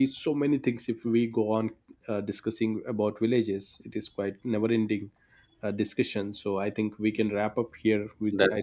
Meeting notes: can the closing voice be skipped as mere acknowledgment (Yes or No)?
Yes